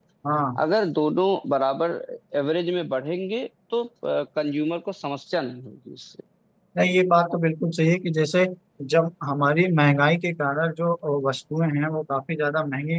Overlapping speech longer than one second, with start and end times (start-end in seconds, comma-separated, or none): none